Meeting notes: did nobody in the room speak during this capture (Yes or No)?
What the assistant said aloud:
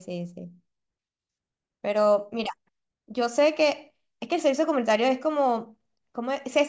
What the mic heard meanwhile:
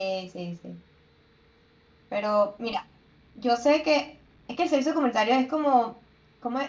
Yes